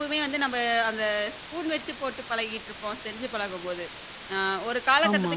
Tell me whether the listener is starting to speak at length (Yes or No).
No